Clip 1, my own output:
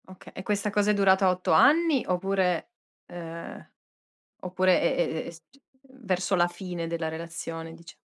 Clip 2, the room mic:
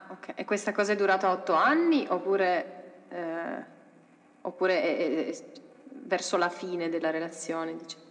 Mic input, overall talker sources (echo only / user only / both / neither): echo only